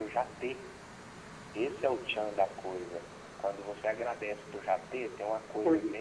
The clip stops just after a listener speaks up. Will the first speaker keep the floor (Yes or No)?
Yes